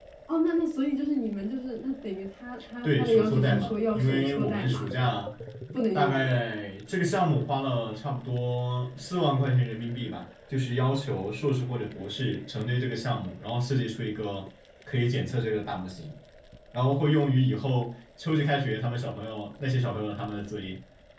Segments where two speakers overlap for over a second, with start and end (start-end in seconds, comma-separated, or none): 2.8-4.9